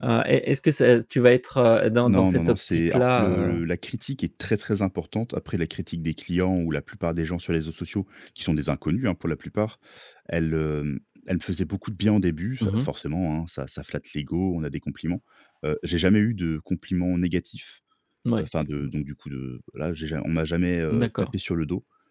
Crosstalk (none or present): present